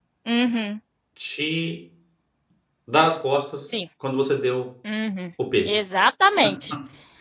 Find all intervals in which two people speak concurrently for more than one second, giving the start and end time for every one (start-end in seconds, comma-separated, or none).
none